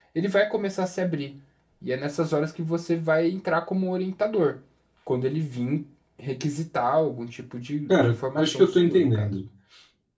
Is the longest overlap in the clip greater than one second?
Yes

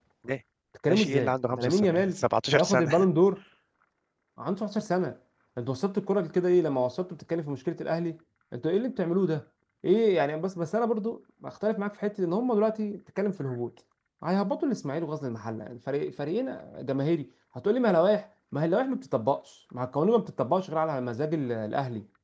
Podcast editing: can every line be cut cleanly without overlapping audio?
No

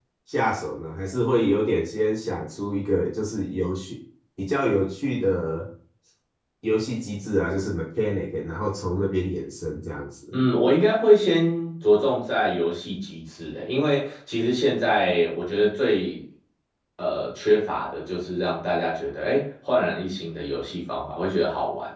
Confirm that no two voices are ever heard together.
Yes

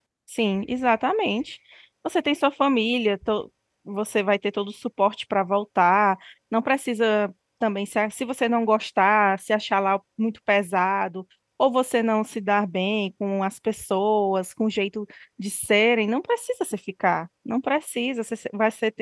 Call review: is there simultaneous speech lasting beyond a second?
No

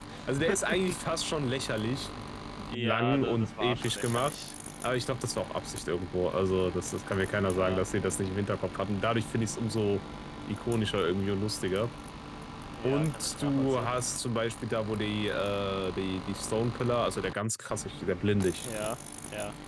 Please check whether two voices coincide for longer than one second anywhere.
Yes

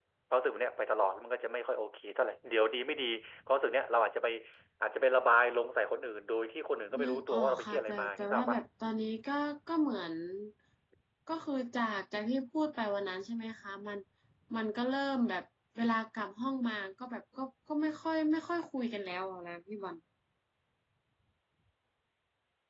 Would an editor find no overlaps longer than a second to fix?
No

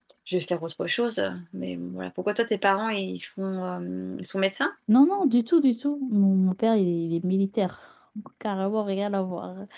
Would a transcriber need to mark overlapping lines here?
No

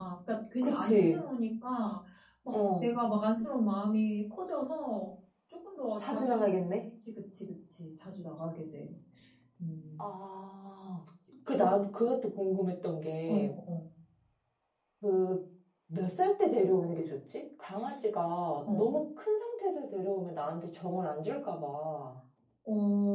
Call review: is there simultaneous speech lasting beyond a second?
No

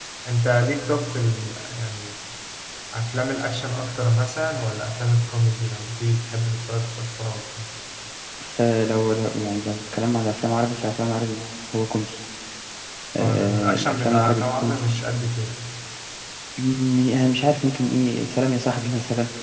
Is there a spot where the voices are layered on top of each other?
Yes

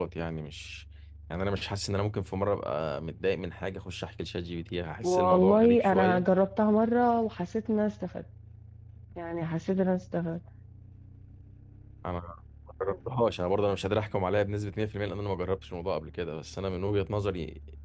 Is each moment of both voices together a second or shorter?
No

